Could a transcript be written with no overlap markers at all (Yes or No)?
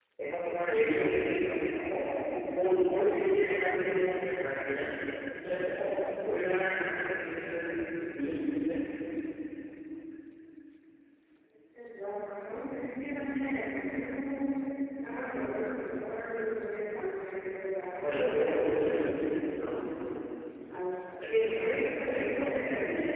No